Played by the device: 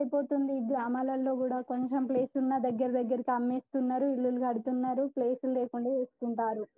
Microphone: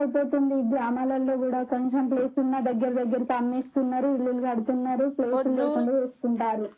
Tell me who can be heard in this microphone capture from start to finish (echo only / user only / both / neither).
both